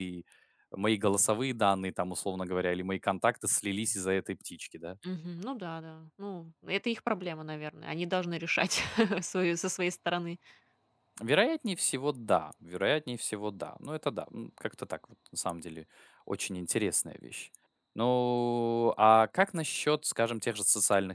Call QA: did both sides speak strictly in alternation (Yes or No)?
Yes